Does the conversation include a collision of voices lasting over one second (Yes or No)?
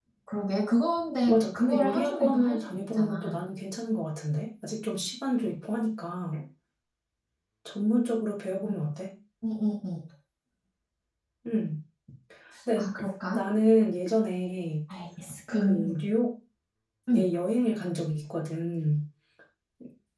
Yes